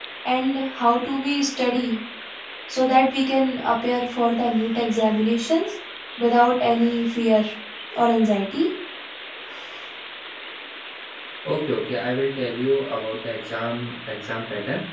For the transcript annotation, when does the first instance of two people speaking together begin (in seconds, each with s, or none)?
none